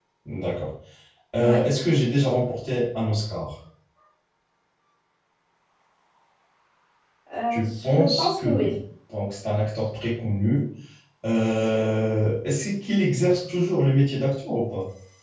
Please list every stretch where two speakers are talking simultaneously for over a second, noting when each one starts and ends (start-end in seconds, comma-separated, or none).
7.5-8.7